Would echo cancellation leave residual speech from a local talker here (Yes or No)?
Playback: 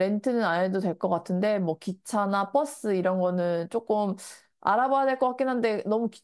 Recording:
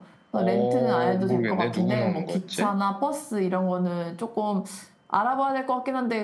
Yes